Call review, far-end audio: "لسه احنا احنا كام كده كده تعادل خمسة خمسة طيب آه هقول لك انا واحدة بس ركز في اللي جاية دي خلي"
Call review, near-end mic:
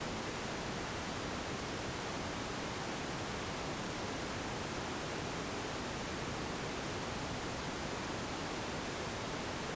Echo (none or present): none